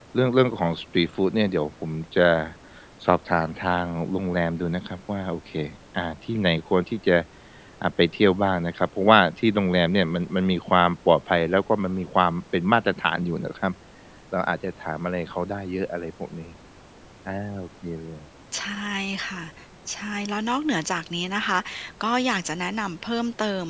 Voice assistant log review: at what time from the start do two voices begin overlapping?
none

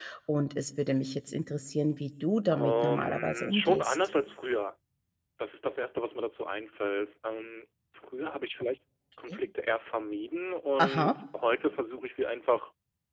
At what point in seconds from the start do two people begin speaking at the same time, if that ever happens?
2.5 s

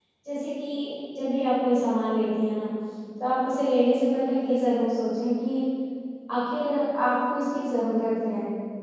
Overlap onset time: none

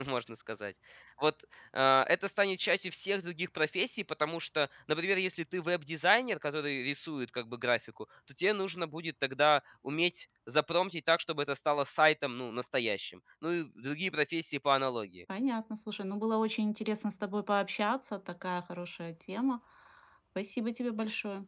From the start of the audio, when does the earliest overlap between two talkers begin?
none

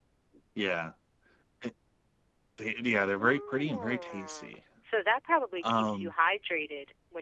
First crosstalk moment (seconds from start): 3.0 s

